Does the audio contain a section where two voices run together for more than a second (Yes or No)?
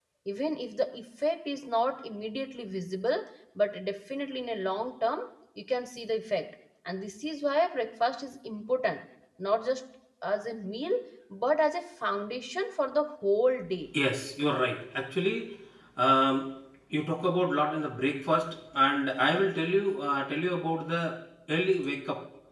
No